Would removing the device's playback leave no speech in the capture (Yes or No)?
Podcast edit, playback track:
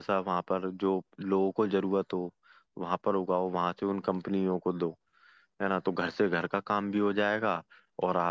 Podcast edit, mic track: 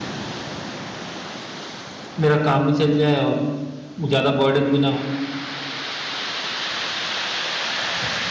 No